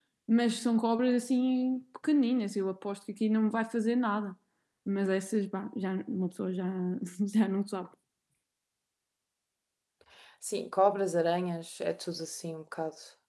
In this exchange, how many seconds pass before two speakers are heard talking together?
none

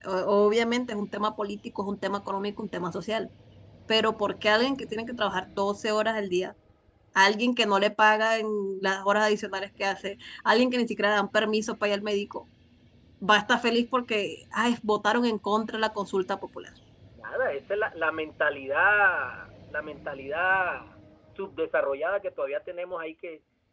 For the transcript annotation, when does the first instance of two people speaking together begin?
none

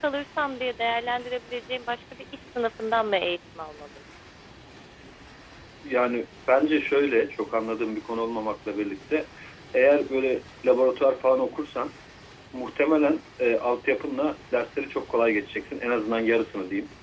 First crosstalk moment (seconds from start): none

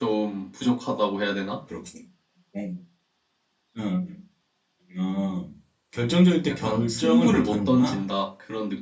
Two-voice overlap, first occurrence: 6.5 s

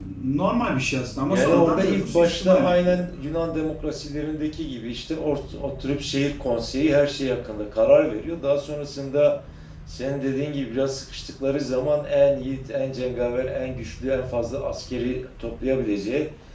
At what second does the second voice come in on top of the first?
1.3 s

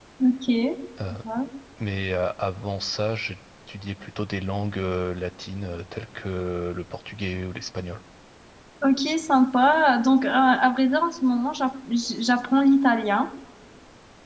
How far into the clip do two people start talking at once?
none

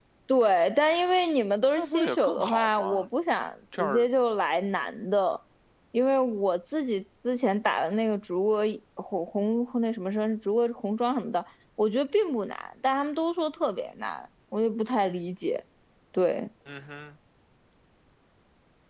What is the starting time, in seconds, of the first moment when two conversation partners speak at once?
1.8 s

